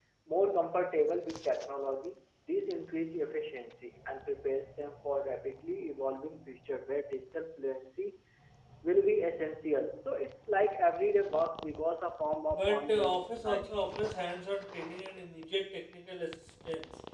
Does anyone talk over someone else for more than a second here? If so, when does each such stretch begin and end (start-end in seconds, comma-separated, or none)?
12.5-13.8